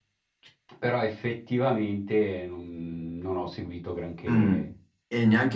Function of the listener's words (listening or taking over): taking over